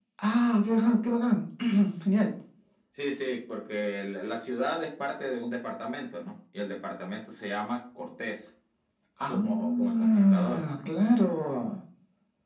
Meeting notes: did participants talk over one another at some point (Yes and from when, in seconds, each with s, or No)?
Yes, from 9.3 s